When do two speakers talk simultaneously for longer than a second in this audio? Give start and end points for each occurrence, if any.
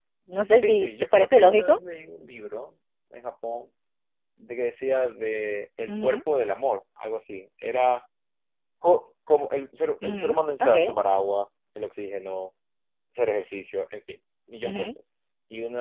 0.6-1.8

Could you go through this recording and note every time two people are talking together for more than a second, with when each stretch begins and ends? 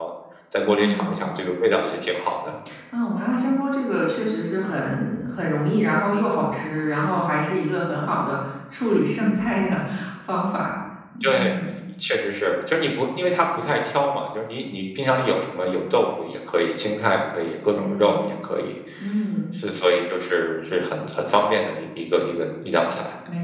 none

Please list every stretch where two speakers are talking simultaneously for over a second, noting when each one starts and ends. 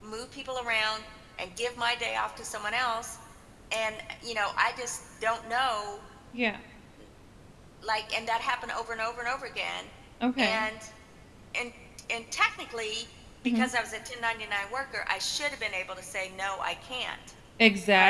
none

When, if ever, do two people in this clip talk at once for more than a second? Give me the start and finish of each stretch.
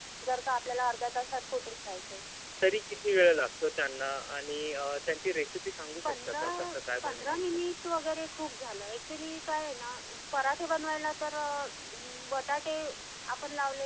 6.0-7.6

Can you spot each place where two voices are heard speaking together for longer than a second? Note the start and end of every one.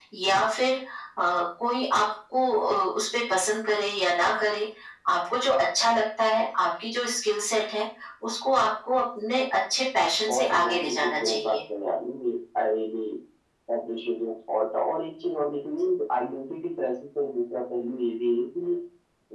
10.3-11.6

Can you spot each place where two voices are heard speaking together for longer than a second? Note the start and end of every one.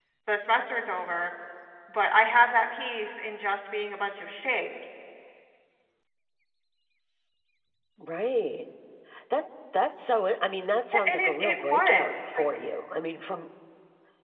10.9-12.4

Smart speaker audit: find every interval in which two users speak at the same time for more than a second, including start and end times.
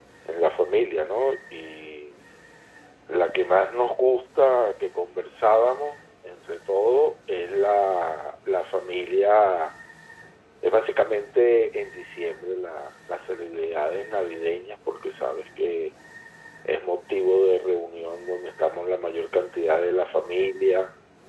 none

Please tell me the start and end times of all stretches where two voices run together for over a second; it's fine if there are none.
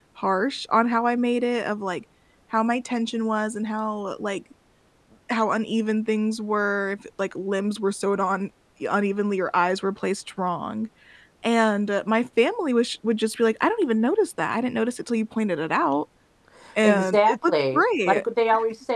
16.8-18.2

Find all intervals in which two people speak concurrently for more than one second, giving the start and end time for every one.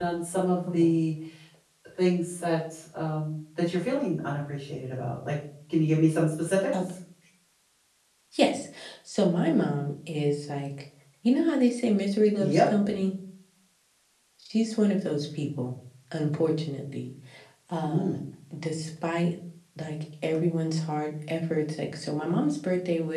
none

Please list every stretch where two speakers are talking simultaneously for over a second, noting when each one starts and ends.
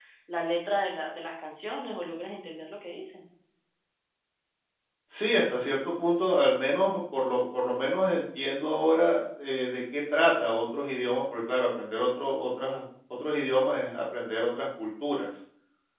none

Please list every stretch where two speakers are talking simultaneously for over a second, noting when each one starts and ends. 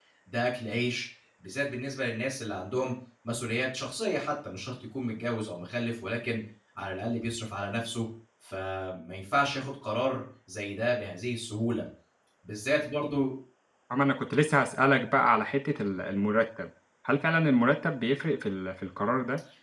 none

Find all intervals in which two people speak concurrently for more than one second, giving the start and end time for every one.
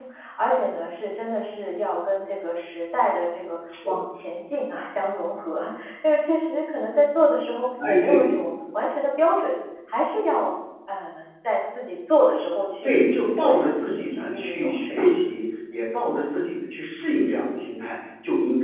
12.8-15.1

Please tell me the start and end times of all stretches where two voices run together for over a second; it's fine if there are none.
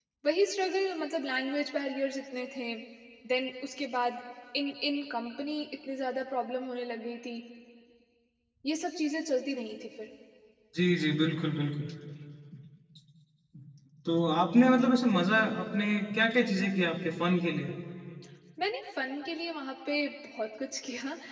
none

